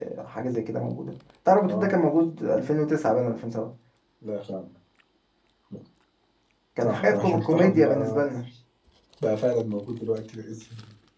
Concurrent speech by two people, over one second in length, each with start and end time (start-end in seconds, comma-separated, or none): 6.8-8.2